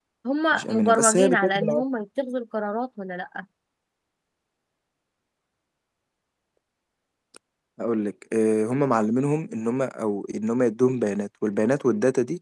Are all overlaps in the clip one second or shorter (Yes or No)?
No